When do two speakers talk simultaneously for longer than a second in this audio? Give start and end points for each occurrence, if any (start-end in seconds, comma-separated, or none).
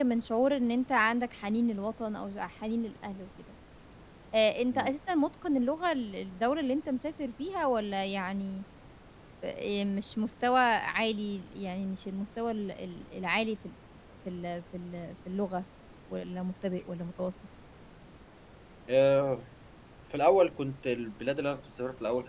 none